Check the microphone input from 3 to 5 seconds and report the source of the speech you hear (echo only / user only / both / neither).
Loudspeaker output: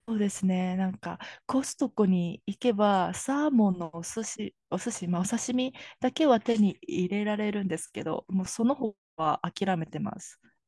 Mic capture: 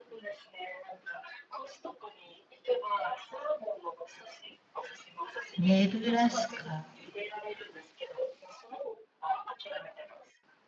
echo only